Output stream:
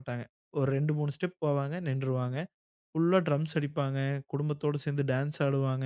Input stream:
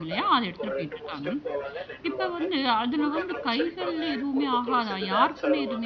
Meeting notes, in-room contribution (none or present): present